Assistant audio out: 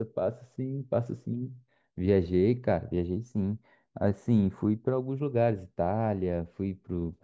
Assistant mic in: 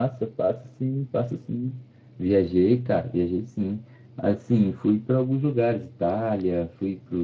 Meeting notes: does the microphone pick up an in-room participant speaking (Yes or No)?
No